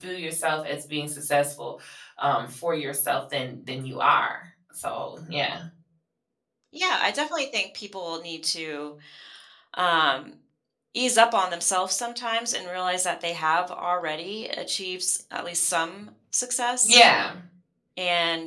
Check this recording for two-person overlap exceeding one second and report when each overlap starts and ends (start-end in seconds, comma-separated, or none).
none